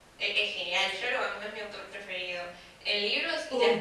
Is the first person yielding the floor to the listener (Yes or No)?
No